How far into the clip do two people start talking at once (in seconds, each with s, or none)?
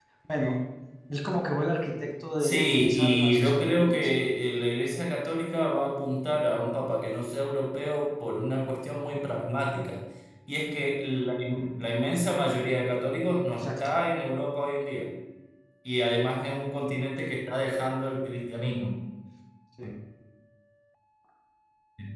2.4 s